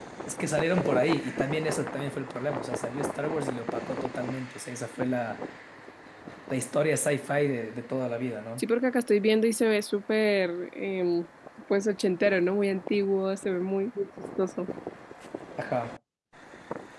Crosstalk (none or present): none